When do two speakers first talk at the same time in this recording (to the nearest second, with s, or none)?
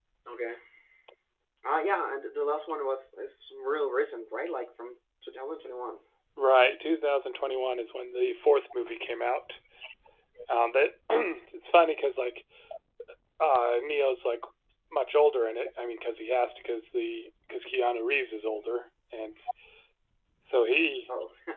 none